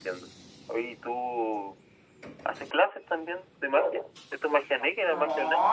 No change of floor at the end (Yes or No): No